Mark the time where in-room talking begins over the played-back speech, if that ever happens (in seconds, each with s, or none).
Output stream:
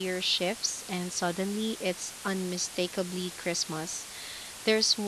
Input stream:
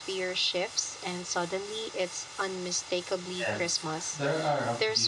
3.4 s